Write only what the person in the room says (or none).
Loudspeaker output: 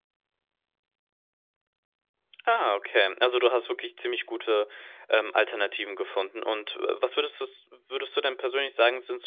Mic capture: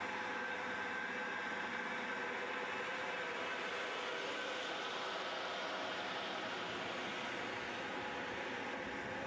none